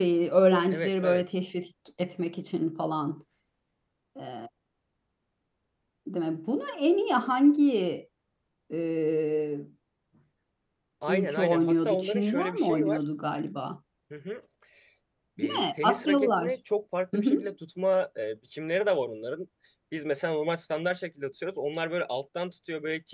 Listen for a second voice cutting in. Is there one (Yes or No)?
Yes